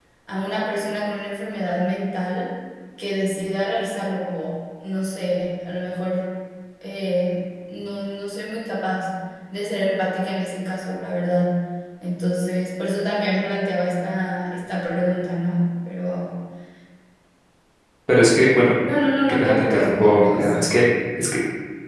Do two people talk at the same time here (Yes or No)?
Yes